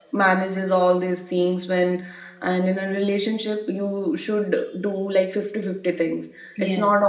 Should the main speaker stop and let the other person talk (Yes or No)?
No